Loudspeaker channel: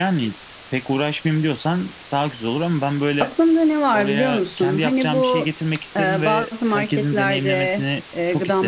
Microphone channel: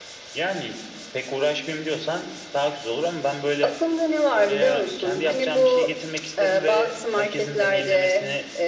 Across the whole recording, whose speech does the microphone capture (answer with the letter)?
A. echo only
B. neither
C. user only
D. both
A